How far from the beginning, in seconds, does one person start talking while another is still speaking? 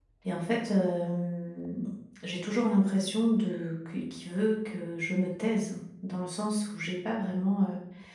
none

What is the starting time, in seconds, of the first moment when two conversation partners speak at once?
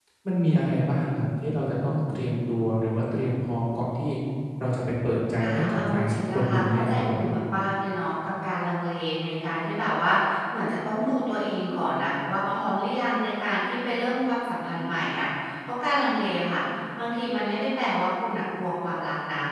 5.4 s

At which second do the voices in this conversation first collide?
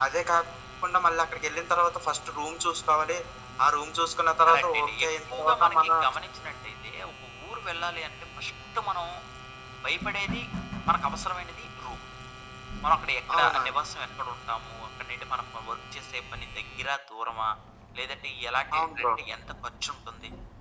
4.5 s

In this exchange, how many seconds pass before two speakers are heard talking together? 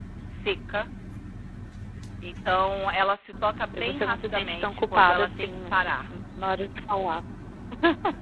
3.7 s

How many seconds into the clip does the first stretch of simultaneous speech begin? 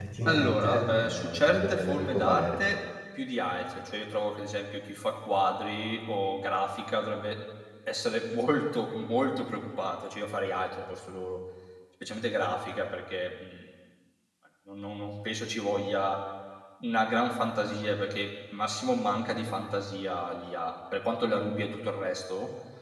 0.5 s

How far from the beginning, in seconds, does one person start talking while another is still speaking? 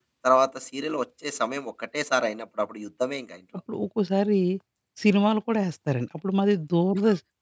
none

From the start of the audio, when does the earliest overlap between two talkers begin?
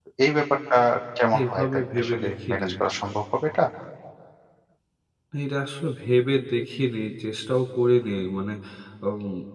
1.5 s

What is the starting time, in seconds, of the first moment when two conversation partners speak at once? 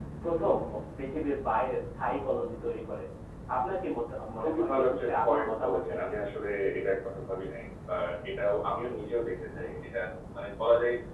4.4 s

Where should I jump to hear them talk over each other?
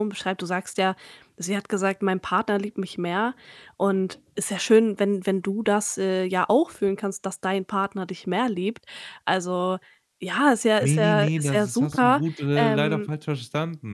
10.8 s

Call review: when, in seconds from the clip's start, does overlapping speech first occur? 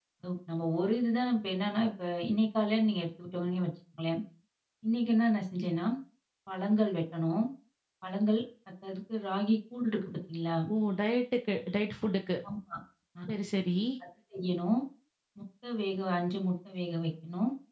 none

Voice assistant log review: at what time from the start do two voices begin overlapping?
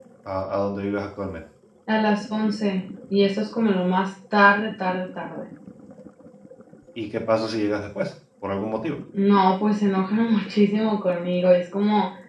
none

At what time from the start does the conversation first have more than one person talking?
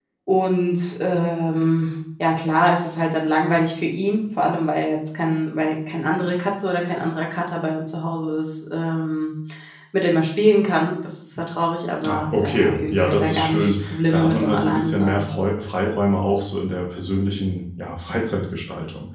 12.0 s

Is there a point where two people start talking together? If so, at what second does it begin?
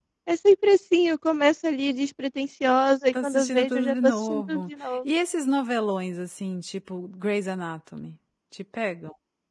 3.1 s

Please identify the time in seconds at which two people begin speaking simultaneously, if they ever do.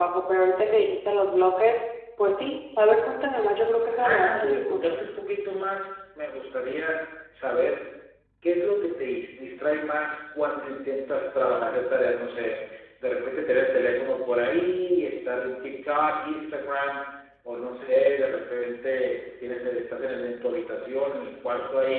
3.7 s

